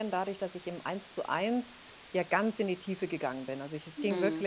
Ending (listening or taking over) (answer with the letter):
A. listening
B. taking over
A